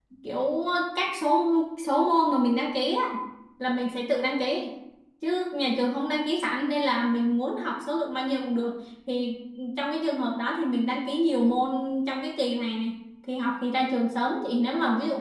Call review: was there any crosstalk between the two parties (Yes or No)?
No